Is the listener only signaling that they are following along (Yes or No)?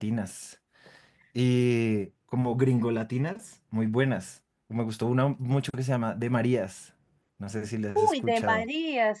No